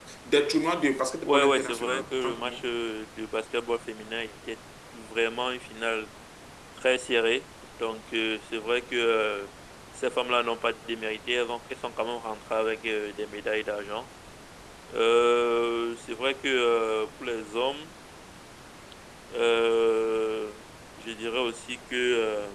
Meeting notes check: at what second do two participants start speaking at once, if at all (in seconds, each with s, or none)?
1.2 s